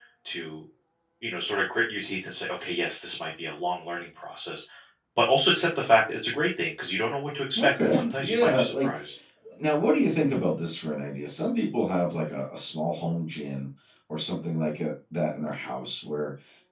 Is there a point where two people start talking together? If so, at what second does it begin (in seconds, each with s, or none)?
7.5 s